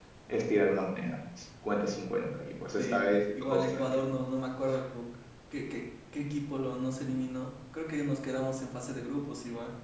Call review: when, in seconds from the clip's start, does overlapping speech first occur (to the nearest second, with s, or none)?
3 s